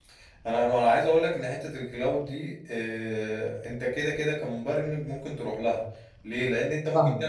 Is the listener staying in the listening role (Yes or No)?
Yes